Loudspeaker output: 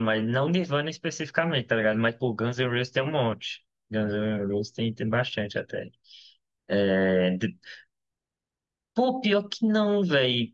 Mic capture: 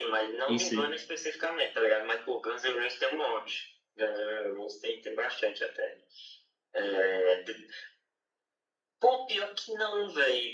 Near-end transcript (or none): em si.